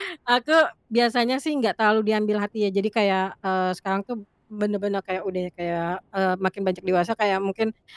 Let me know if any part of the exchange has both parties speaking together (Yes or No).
No